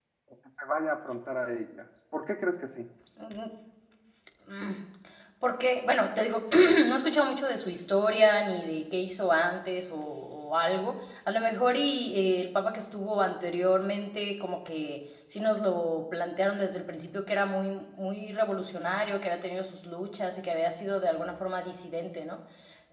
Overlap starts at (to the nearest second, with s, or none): none